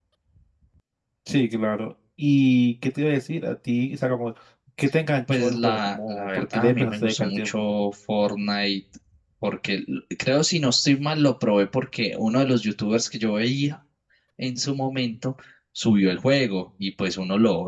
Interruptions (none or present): present